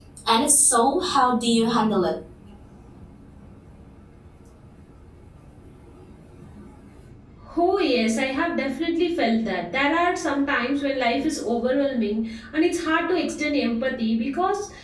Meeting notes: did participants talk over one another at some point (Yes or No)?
No